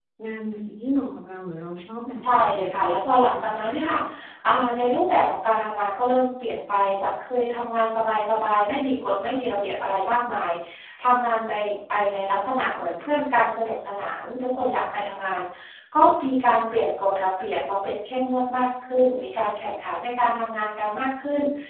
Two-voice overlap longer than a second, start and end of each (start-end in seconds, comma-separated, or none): 2.2-3.5